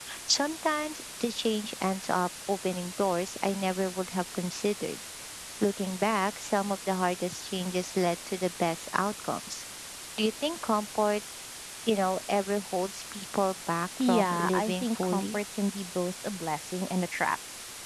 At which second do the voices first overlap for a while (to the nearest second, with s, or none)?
14 s